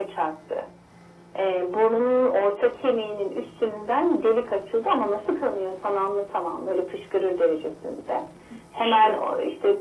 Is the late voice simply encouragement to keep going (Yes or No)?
Yes